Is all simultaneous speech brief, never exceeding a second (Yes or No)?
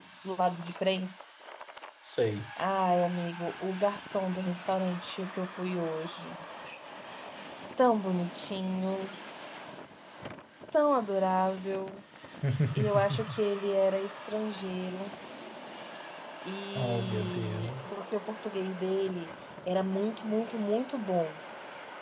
No